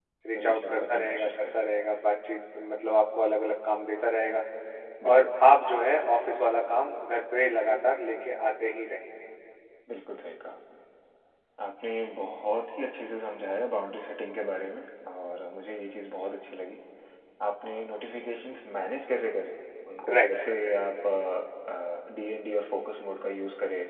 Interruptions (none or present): present